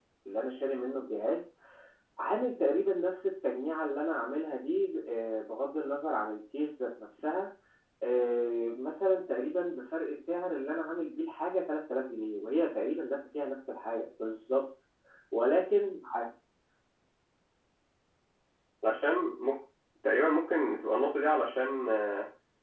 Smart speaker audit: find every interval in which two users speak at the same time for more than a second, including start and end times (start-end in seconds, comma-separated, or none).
none